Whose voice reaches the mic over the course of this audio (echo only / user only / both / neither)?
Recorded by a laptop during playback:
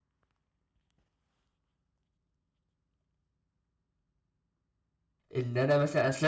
user only